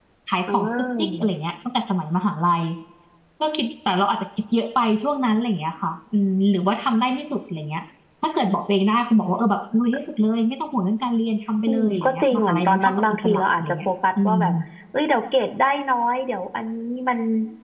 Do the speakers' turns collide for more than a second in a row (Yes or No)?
Yes